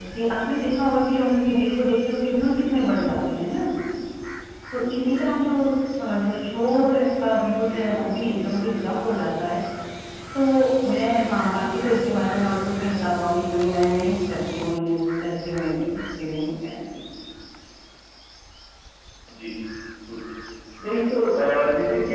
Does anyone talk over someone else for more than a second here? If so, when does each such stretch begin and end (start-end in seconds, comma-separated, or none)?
none